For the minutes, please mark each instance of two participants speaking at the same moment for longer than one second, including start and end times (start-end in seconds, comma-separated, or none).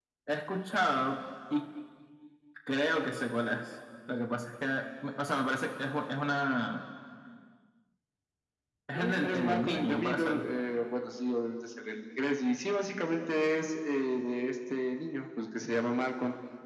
8.9-10.4